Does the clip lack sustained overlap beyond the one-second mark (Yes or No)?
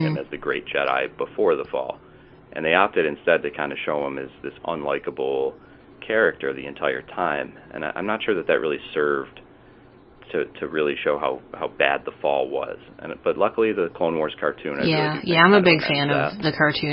No